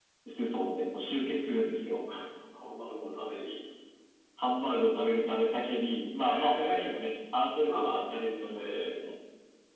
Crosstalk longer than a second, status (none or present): present